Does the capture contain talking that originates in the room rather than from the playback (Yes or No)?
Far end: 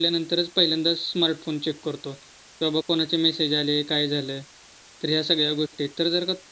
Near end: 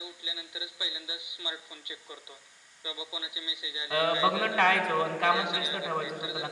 Yes